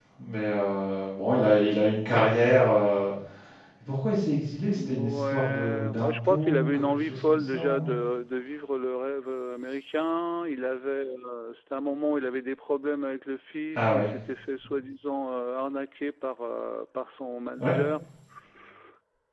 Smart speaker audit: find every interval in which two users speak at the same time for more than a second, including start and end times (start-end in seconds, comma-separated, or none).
4.8-8.0